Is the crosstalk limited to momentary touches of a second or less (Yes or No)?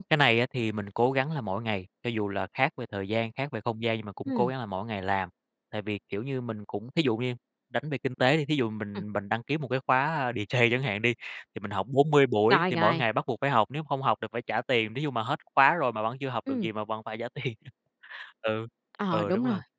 Yes